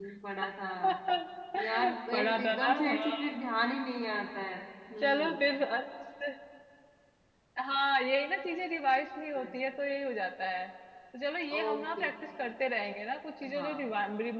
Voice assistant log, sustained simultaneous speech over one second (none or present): present